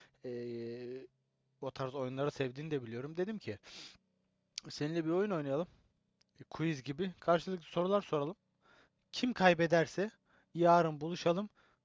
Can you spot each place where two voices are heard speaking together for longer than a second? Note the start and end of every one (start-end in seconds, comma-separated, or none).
none